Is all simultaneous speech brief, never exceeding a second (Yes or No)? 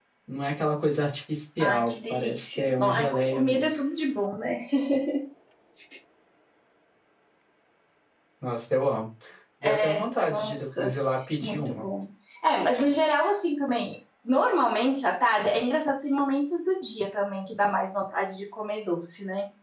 No